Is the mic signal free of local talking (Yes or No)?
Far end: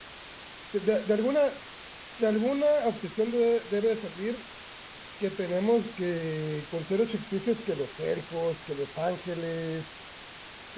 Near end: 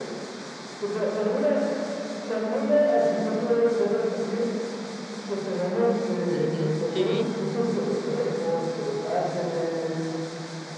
No